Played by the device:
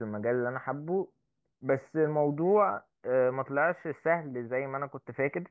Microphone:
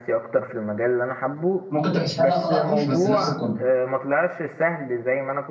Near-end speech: present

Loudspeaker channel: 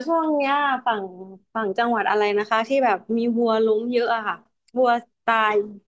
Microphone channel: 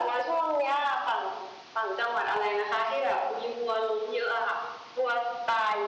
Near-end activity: none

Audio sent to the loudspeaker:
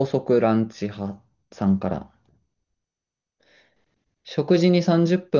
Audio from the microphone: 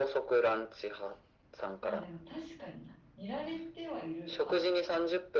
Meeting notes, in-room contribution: present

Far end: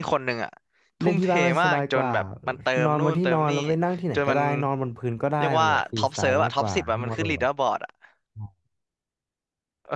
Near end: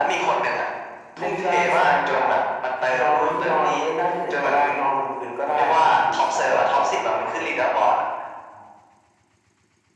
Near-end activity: none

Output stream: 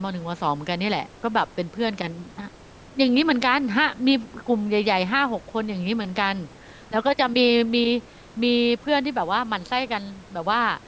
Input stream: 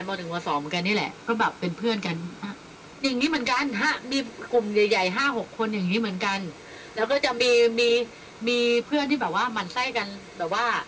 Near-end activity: none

